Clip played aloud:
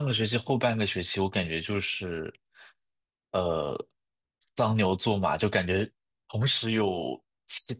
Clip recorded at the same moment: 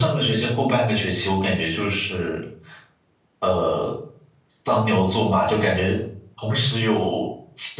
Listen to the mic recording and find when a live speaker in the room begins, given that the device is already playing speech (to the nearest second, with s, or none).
none